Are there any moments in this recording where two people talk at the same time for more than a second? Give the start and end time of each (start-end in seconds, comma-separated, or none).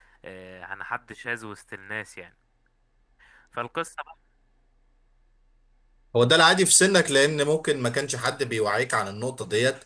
none